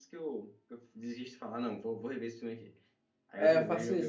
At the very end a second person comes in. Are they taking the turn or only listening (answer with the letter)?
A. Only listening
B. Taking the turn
B